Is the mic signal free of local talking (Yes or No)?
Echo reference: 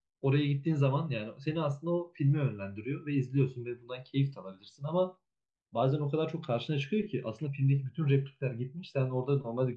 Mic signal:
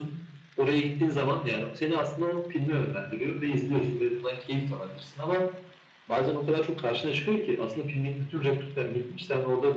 Yes